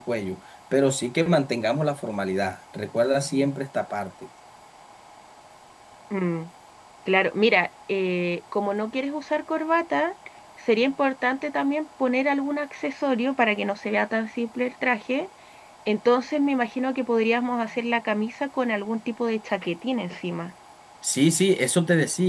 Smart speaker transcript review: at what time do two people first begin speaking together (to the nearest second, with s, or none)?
none